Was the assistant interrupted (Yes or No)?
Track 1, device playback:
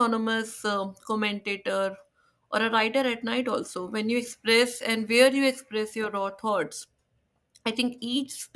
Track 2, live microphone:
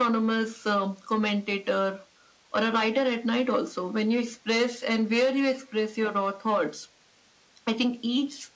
No